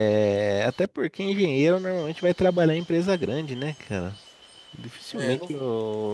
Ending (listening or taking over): listening